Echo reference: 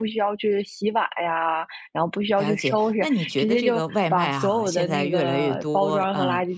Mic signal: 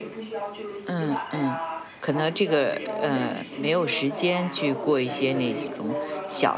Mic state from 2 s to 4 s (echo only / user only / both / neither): both